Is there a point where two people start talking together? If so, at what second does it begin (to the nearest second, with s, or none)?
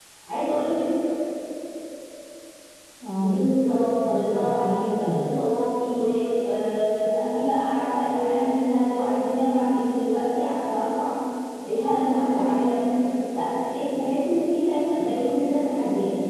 3 s